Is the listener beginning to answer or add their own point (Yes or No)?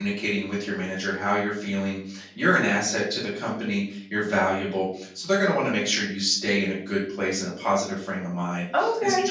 No